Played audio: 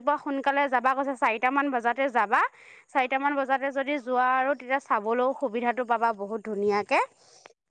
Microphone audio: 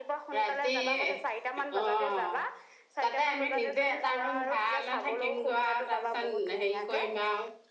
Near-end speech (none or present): present